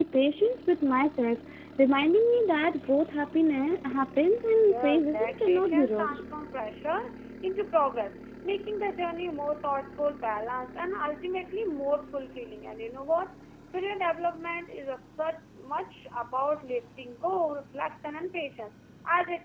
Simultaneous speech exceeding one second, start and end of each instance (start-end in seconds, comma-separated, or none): 4.7-6.2